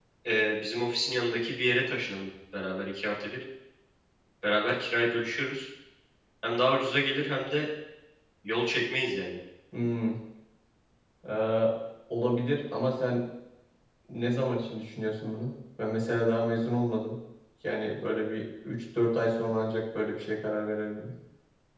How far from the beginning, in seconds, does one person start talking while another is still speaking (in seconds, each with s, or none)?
none